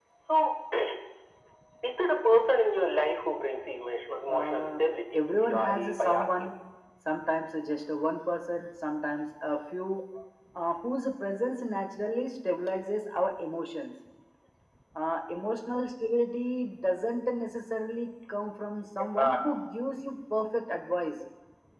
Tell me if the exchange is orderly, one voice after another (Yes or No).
No